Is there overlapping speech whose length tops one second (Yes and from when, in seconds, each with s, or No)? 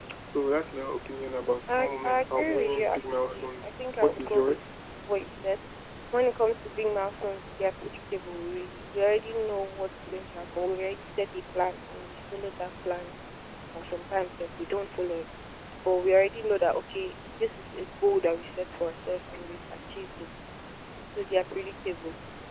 Yes, from 1.7 s